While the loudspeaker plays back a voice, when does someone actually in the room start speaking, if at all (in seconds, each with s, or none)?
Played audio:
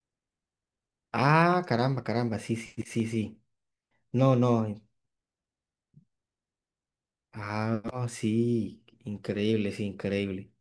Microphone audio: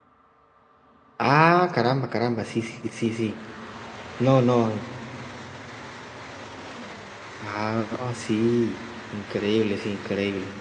none